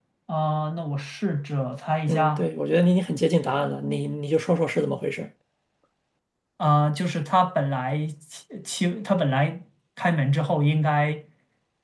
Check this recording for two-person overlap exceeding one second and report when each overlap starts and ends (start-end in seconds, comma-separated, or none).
none